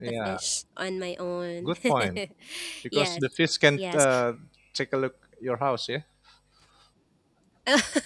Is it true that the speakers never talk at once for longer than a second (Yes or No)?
Yes